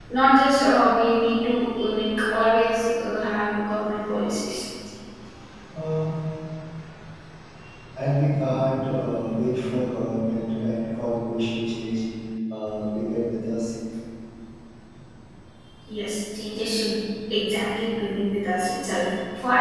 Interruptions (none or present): none